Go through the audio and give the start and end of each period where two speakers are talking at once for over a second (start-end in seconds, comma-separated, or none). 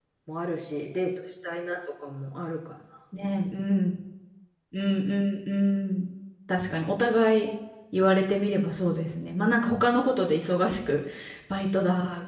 none